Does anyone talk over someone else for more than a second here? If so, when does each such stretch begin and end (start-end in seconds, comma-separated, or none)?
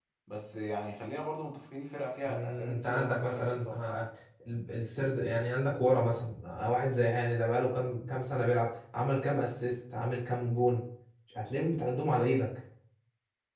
2.2-4.0